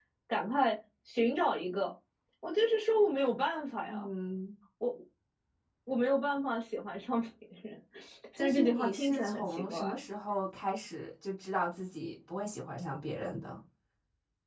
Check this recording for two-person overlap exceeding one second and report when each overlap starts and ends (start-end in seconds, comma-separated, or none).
8.4-9.8